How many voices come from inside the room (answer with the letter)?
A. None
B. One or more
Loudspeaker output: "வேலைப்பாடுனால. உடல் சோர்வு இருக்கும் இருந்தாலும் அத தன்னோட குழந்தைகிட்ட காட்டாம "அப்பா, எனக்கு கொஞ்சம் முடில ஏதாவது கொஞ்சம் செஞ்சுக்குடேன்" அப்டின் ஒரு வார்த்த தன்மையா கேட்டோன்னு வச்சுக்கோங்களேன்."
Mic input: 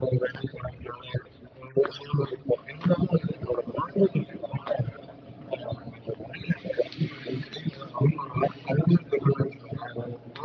A